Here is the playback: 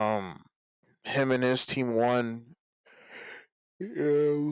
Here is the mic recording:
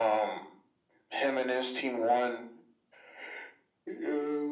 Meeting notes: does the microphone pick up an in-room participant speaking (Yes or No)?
No